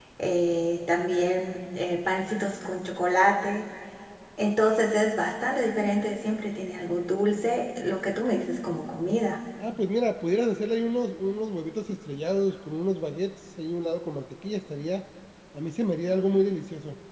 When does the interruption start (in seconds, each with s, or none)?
none